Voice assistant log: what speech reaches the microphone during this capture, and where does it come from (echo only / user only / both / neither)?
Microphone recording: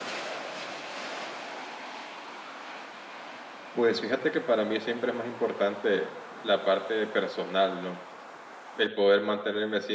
user only